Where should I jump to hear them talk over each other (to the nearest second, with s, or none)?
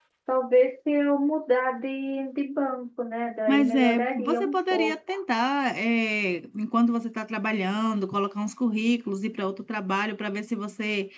3 s